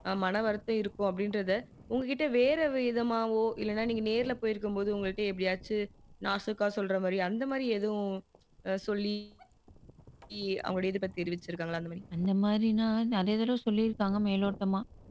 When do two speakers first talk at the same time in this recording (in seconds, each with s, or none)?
none